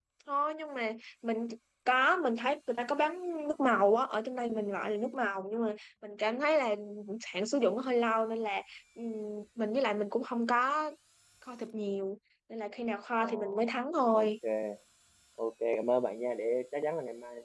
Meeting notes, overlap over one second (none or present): none